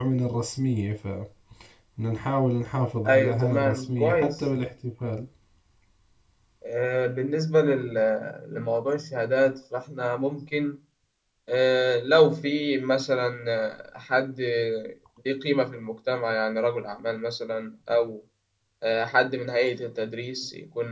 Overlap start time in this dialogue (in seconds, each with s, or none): 3.0 s